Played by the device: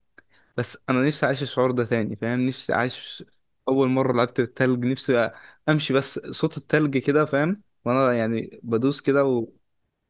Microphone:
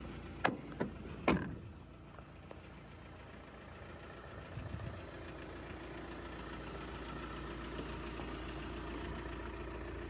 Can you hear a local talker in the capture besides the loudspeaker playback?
No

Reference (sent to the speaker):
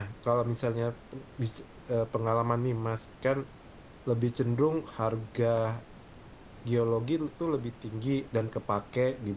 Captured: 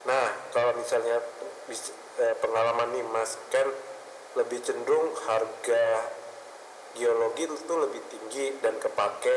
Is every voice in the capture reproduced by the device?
Yes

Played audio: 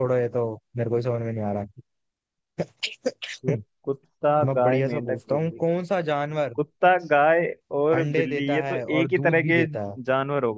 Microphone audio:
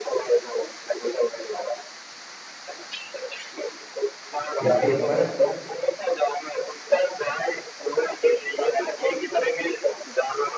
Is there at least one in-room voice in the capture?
Yes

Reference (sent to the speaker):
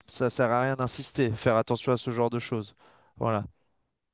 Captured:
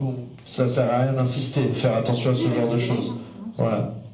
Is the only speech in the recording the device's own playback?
No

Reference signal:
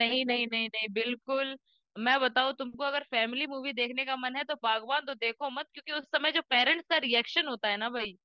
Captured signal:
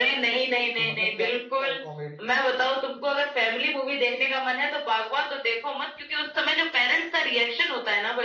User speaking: Yes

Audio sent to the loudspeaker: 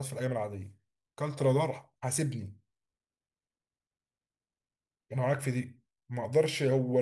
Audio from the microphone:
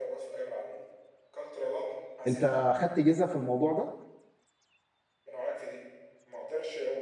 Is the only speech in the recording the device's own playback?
No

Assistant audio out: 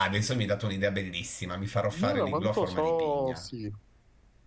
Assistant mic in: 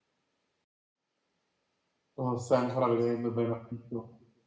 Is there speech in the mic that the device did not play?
Yes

